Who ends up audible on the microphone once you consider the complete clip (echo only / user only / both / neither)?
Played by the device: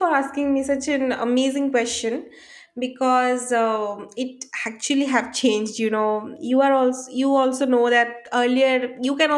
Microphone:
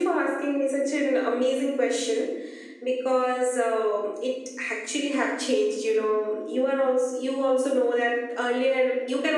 echo only